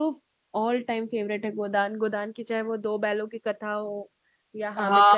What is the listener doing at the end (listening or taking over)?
taking over